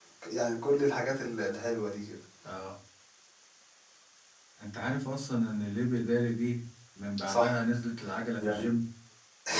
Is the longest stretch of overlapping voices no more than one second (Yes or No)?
Yes